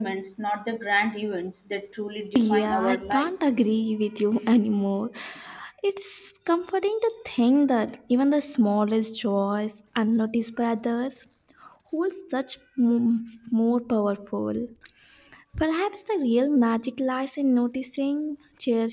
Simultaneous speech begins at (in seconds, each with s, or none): 2.4 s